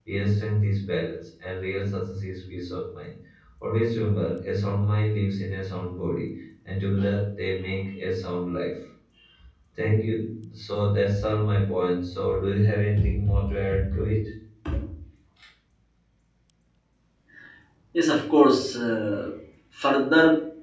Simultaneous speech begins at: none

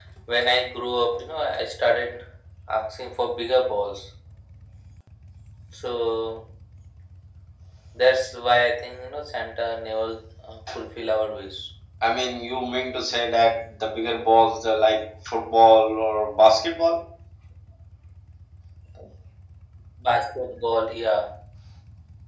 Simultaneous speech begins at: none

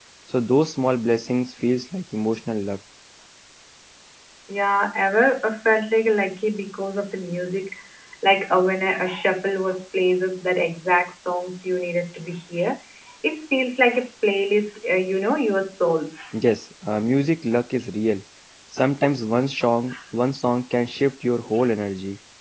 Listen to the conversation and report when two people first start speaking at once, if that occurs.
none

